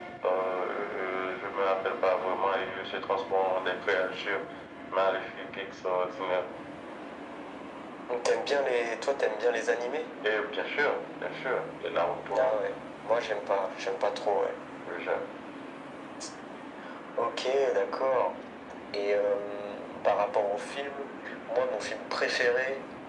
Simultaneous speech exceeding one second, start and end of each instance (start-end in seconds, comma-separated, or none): none